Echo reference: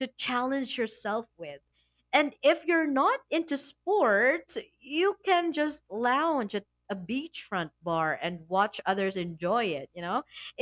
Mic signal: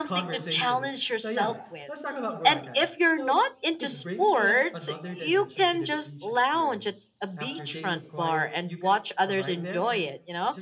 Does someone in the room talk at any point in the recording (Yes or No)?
Yes